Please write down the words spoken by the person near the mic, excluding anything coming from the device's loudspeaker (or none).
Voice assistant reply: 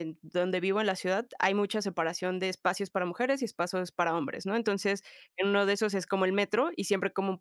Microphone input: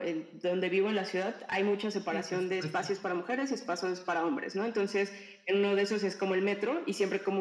Sí, por supuesto.